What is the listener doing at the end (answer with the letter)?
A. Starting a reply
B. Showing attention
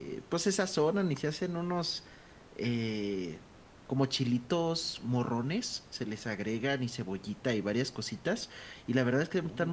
B